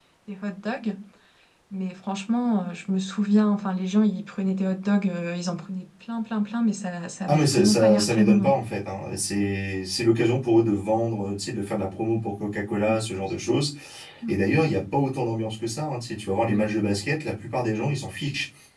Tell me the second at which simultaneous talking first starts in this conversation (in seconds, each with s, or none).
7.3 s